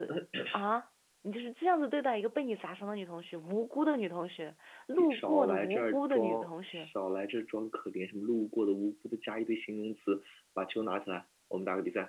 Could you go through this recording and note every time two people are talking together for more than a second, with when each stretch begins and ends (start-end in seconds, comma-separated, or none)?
5.0-6.9